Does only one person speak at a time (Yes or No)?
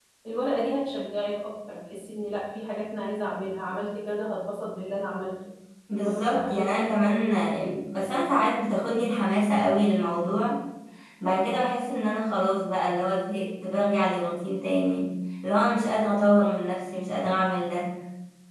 No